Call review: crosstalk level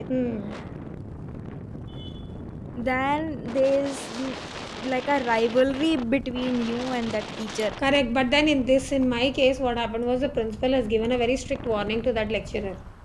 none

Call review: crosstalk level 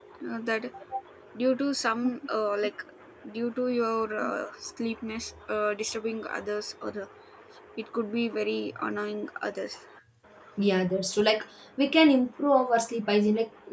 none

